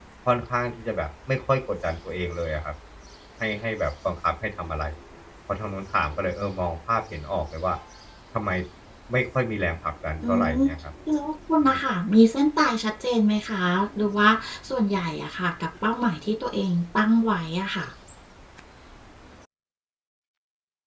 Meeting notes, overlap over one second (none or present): none